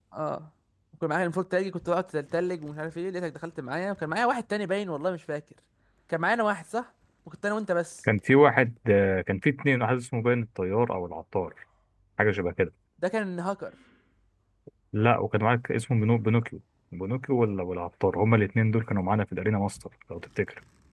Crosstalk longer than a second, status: none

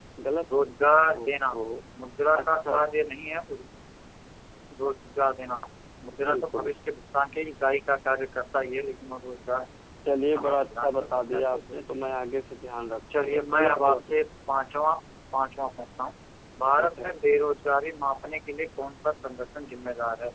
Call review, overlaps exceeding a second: present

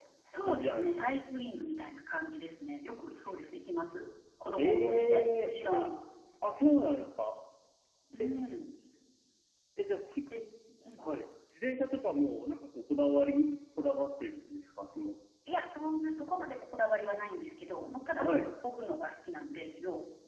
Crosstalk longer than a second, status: present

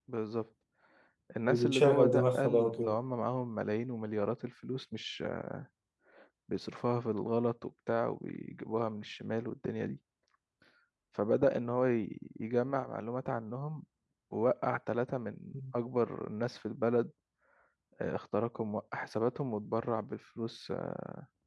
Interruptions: present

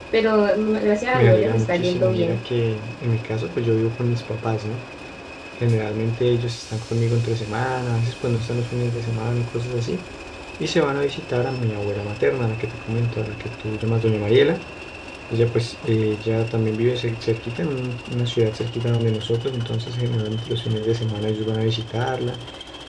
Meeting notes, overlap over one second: present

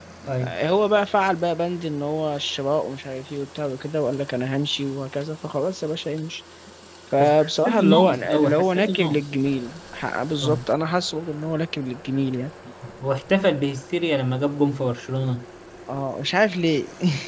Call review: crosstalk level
present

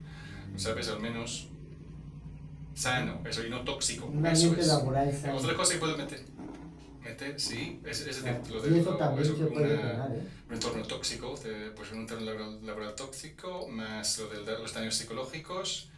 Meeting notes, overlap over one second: present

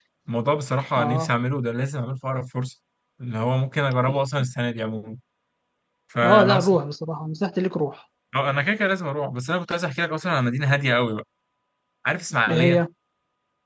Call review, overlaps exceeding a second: none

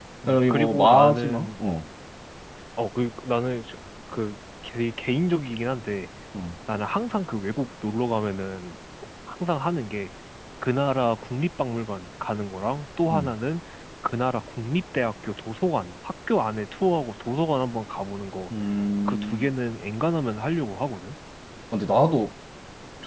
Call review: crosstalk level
present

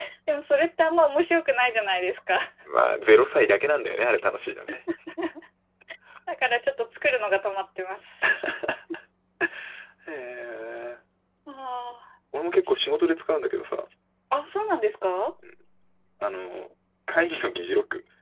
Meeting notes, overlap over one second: none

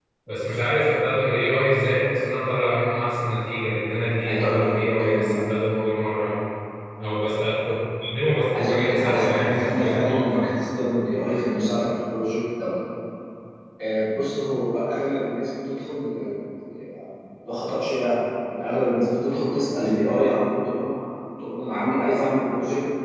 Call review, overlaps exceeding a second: present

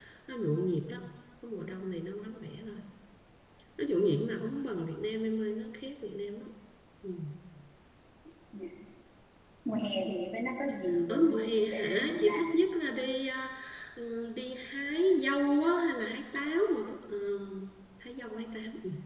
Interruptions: present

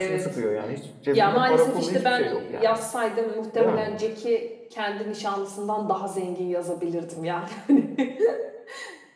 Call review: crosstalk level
present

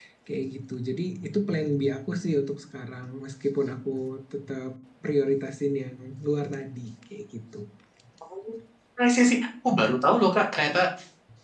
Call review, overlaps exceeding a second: none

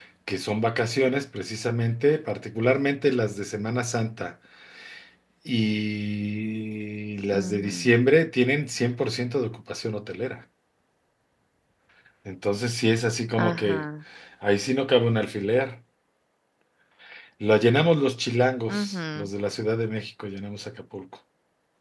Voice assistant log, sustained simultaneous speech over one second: none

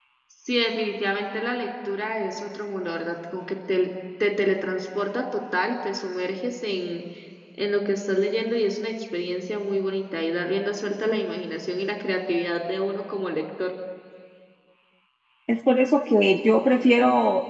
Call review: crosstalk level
none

